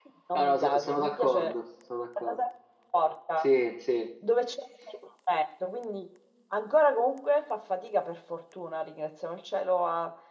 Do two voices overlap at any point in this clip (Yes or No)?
Yes